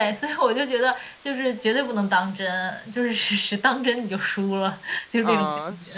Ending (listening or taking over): taking over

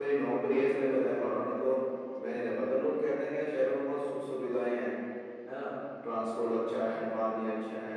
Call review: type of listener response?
listening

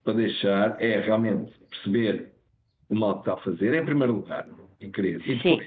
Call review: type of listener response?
listening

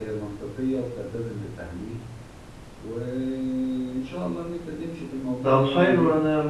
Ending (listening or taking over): taking over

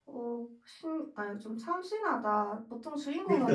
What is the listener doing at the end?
taking over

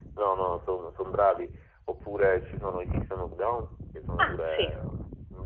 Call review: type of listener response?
listening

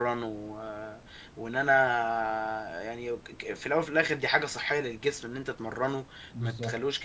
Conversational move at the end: listening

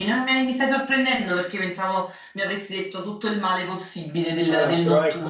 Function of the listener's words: taking over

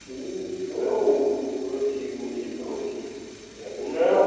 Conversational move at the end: taking over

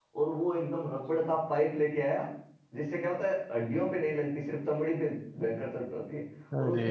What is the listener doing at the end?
listening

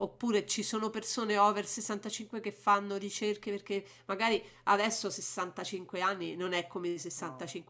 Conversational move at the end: listening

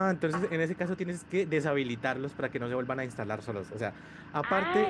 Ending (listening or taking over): listening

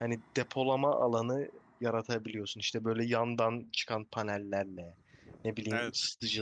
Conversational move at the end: listening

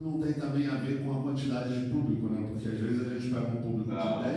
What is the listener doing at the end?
listening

